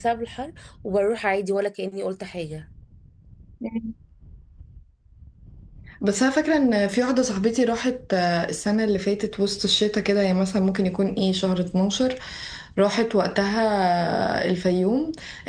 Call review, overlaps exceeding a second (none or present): none